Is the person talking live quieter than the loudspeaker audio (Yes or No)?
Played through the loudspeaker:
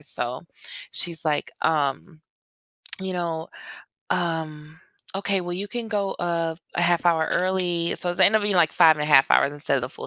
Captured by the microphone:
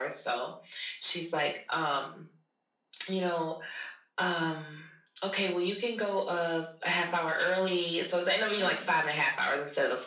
Yes